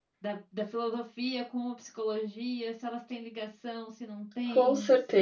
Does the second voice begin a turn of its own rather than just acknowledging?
Yes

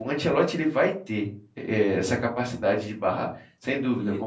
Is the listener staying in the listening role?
No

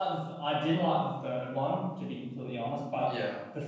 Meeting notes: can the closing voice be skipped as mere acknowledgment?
Yes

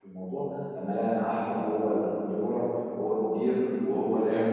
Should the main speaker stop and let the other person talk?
No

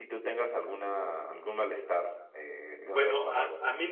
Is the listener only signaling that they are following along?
No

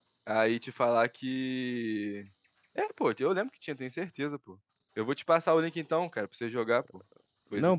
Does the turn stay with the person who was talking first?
No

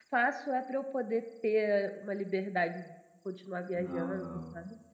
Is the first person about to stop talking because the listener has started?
Yes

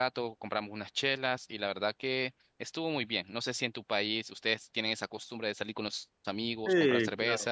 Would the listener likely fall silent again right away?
No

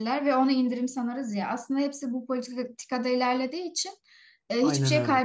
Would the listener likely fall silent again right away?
Yes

